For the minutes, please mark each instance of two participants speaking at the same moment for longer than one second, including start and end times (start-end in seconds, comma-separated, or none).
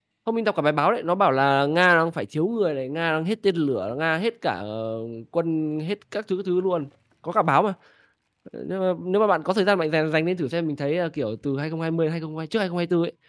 none